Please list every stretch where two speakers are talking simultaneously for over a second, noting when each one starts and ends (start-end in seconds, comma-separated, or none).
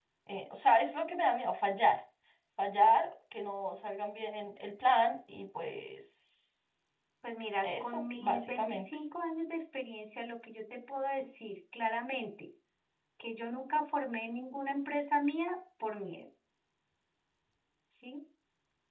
7.6-8.8